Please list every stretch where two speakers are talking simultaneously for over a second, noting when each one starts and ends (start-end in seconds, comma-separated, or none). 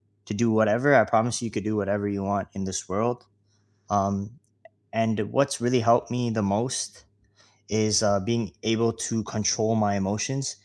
none